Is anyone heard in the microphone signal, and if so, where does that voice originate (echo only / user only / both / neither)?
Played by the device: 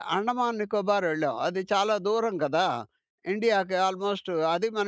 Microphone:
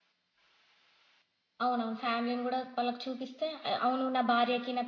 user only